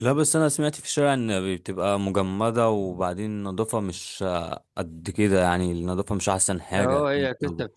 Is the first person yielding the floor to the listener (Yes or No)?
Yes